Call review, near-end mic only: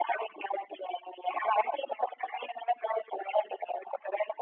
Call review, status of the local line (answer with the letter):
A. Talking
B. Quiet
B